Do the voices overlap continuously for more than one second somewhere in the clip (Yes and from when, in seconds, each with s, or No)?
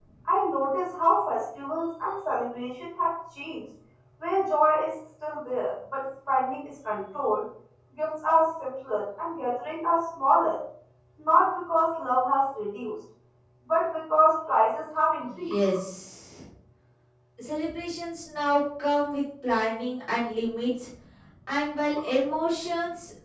No